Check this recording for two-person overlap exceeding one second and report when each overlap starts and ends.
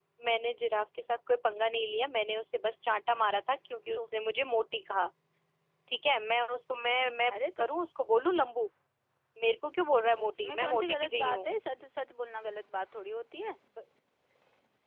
10.2-11.5

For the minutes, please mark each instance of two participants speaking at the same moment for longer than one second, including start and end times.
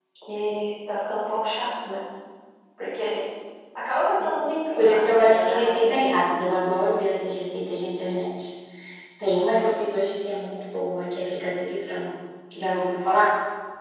4.8-6.3

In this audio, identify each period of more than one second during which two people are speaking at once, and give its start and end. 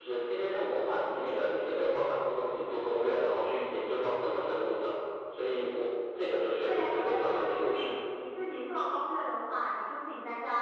6.7-7.9

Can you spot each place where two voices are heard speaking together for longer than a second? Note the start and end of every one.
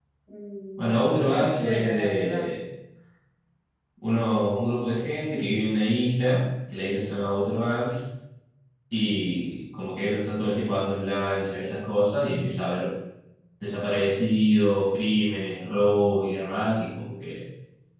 0.8-2.5

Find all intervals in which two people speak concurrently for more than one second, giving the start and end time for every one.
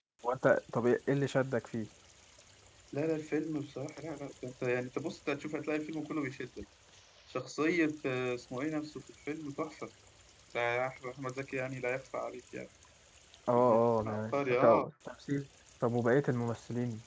13.6-14.9

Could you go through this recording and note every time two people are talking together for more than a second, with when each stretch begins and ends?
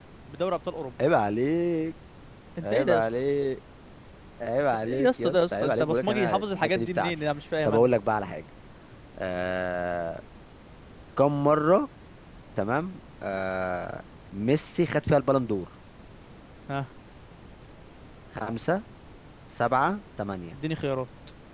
4.8-7.1

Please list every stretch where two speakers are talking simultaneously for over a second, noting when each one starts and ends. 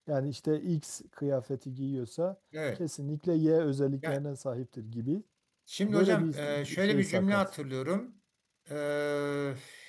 5.9-7.4

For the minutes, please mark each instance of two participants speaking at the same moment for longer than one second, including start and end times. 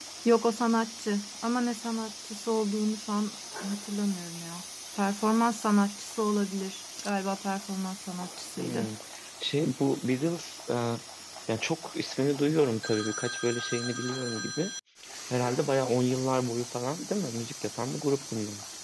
none

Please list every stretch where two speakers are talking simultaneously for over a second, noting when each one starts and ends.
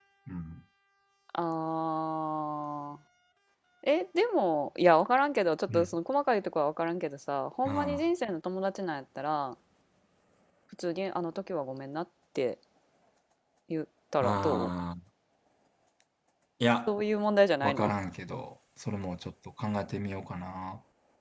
none

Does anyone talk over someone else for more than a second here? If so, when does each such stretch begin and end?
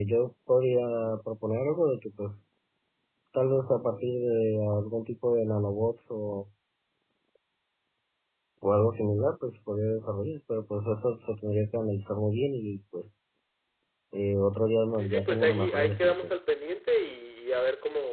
14.9-16.3

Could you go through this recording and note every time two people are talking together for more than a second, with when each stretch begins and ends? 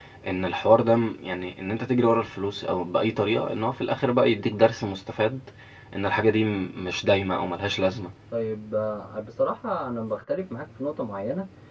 none

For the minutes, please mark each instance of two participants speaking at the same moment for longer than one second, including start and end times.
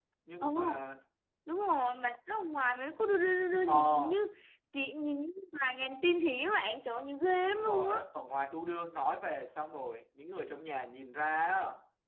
none

